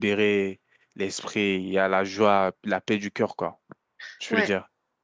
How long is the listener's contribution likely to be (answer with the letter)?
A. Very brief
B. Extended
B